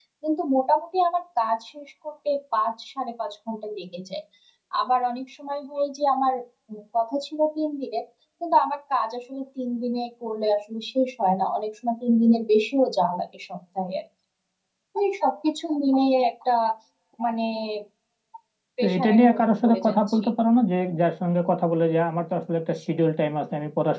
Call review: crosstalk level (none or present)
present